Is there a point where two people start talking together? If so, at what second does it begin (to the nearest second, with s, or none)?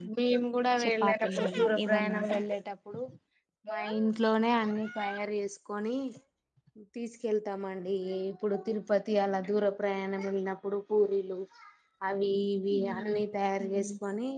1 s